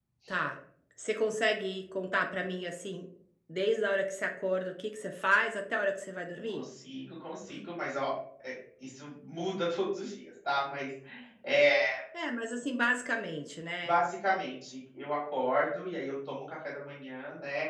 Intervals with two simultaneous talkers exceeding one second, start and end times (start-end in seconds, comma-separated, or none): none